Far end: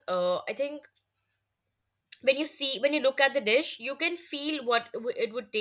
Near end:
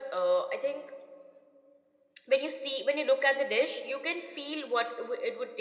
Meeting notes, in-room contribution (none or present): none